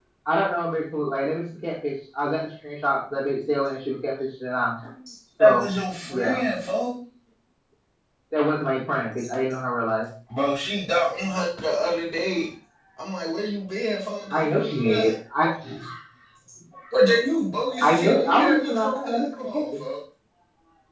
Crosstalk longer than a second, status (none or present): present